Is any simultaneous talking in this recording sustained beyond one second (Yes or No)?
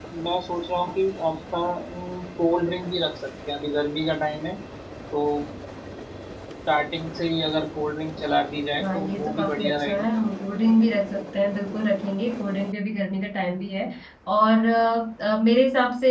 Yes